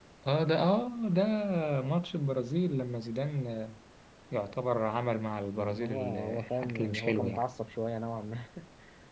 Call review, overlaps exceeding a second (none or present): present